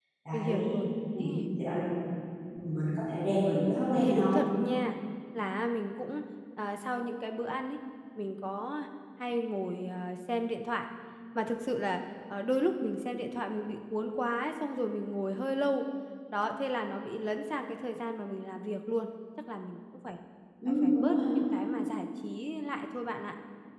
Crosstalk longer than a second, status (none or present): none